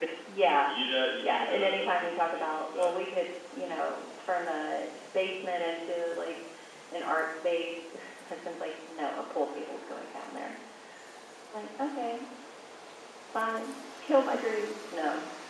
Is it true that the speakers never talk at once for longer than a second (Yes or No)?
No